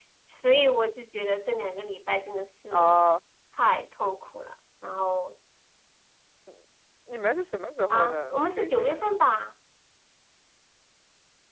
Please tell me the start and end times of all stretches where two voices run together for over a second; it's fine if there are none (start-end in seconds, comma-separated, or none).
7.9-9.2